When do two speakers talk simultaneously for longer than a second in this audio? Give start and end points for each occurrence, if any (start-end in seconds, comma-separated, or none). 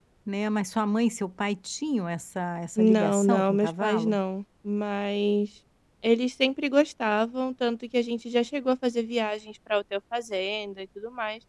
2.8-4.2